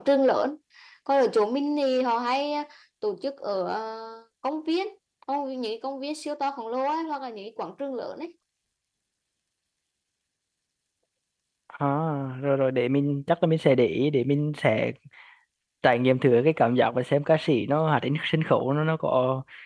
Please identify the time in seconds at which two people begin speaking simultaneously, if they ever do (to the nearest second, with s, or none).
none